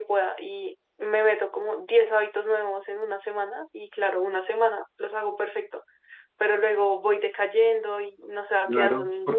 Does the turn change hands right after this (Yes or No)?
Yes